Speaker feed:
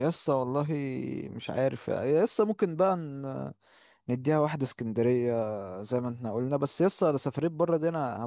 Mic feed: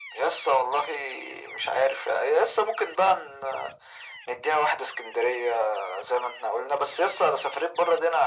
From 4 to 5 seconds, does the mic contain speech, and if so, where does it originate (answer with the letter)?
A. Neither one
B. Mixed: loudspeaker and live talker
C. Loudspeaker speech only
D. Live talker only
C